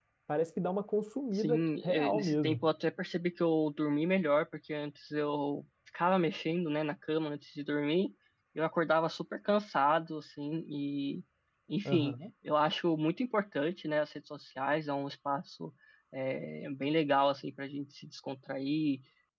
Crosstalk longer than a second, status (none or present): present